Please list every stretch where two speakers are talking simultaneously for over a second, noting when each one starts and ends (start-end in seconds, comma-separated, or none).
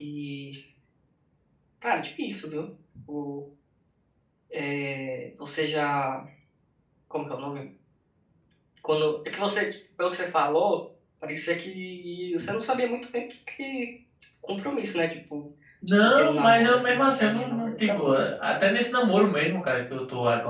16.0-18.0